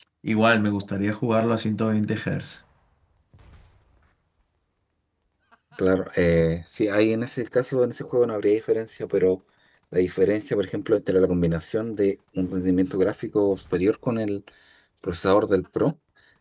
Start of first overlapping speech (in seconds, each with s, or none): none